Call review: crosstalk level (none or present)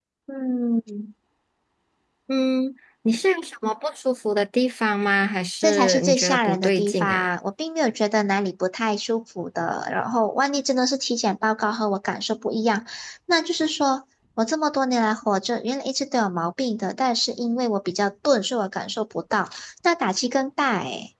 present